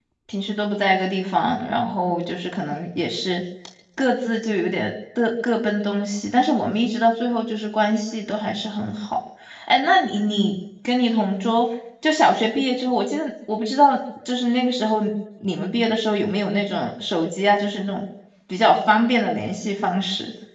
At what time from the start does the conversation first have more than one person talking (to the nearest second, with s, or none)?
none